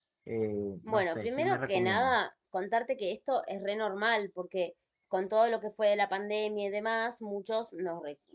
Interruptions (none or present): present